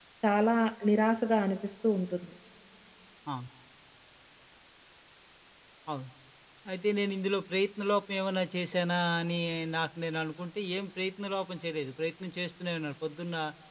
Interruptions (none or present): none